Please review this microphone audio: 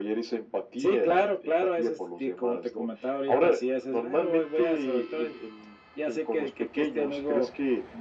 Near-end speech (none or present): none